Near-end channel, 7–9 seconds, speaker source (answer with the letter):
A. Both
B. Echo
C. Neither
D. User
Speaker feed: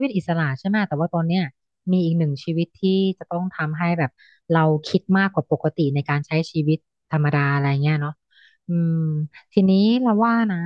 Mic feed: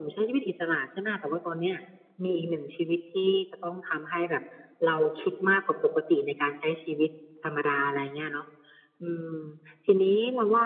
B